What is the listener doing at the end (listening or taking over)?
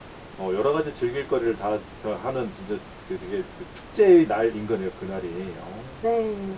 taking over